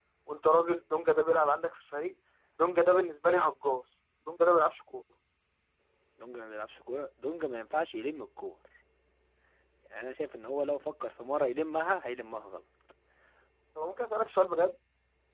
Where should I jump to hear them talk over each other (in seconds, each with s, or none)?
none